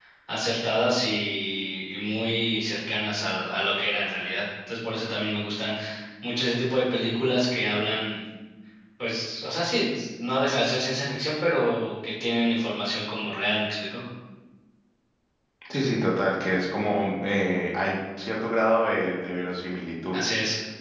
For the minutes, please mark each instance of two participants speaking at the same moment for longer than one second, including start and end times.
none

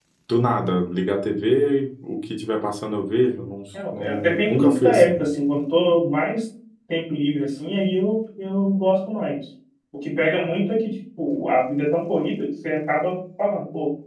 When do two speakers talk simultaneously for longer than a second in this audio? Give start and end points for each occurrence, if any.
3.9-5.2

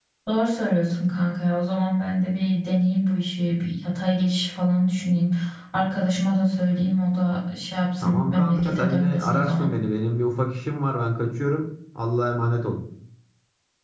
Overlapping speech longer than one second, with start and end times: 8.0-9.7

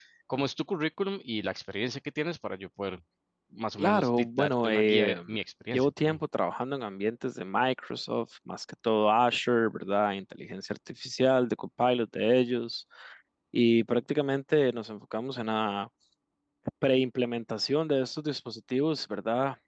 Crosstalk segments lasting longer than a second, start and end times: 3.8-5.2

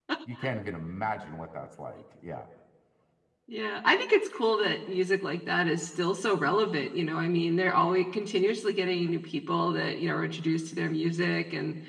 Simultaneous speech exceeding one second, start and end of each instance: none

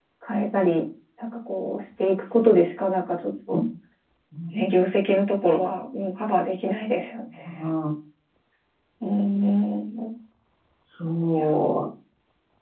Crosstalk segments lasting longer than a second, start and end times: none

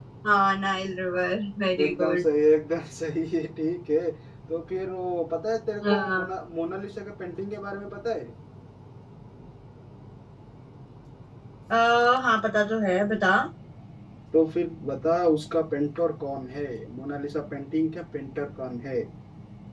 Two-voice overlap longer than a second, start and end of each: none

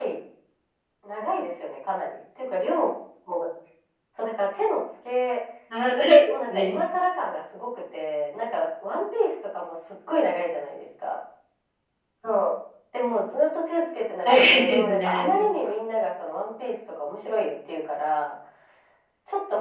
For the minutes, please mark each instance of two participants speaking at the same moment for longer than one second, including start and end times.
14.2-15.5

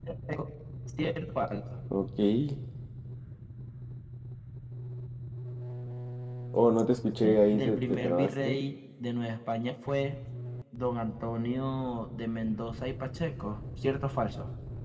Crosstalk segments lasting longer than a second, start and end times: 7.2-8.6

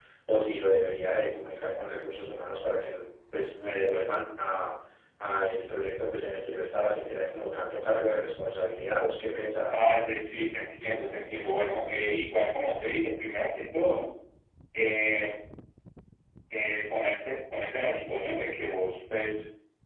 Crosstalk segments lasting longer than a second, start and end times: none

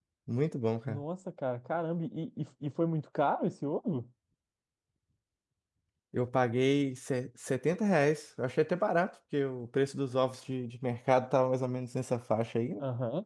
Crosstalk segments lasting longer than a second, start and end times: none

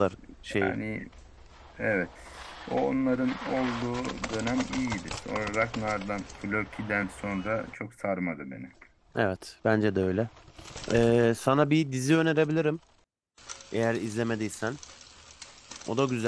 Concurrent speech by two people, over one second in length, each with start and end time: none

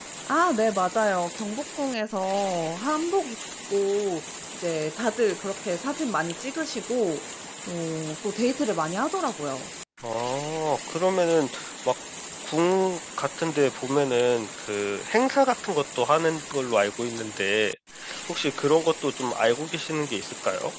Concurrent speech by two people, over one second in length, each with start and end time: none

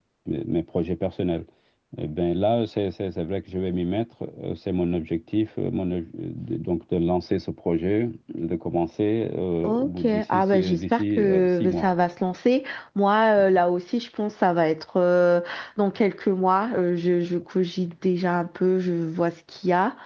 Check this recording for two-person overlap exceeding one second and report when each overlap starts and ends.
9.6-11.8

